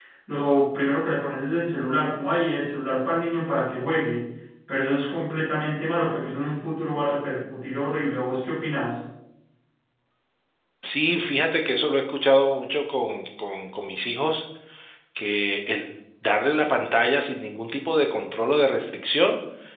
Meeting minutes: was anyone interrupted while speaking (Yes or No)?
No